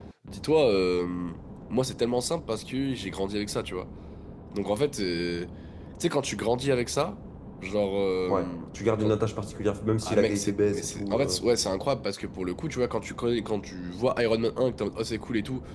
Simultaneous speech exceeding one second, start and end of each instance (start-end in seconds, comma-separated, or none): 10.0-11.4